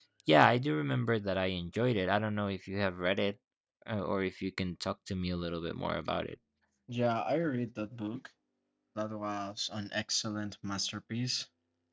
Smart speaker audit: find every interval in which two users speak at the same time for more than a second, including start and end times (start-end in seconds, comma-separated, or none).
none